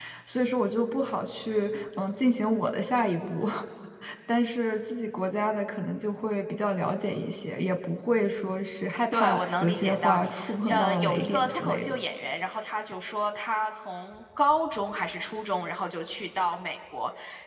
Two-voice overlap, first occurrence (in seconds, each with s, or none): 9.1 s